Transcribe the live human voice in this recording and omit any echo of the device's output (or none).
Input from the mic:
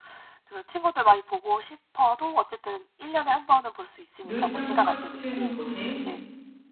늘상 똑같은 곳에